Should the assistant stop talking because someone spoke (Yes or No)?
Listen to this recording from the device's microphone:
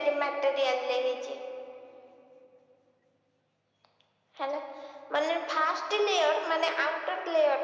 No